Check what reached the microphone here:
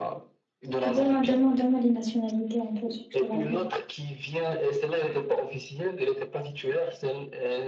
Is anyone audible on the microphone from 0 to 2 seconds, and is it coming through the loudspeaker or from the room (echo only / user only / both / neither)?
both